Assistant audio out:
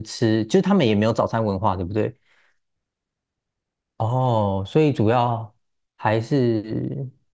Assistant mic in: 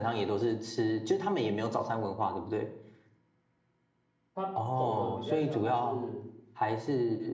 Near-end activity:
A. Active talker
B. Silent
A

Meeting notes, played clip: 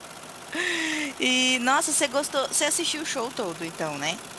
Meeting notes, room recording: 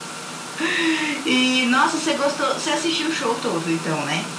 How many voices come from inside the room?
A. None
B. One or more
A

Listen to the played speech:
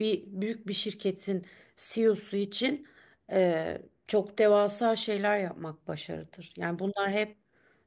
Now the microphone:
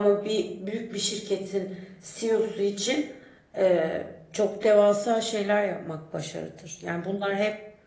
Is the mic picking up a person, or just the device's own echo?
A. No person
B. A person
A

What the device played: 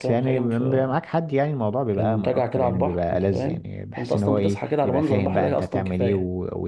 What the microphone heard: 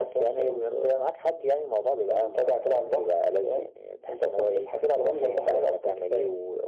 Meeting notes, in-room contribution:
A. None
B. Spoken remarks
A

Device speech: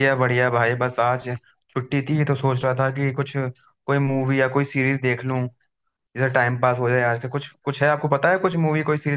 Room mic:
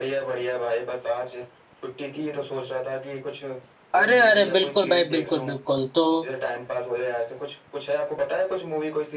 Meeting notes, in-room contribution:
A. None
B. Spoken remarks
B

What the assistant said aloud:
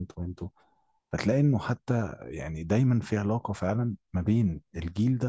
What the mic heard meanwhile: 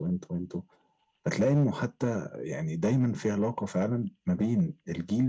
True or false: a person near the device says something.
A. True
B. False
B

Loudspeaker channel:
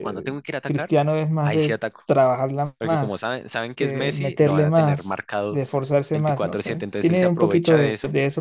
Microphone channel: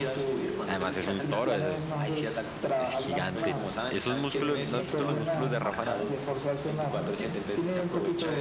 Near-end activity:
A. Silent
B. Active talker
B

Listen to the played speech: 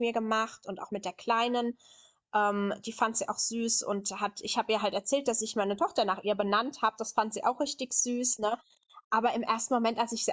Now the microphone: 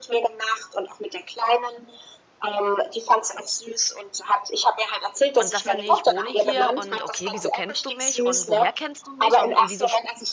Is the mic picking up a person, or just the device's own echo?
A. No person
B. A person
B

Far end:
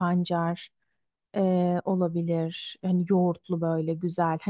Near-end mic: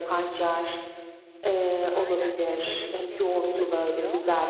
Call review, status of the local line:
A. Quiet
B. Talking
B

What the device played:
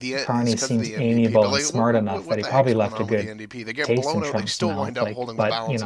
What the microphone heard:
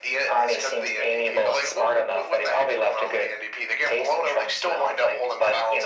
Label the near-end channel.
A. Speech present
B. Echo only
B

